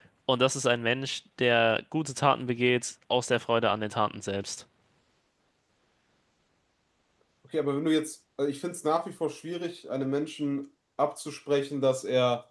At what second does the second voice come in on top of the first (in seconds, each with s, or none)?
none